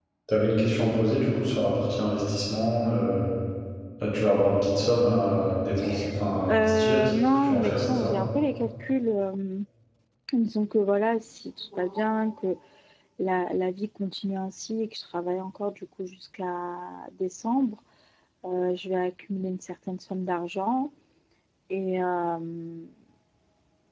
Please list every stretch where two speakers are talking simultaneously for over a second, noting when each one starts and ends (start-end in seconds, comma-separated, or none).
6.5-8.2